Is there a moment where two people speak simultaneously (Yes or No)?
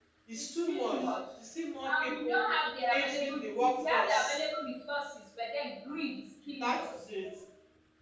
Yes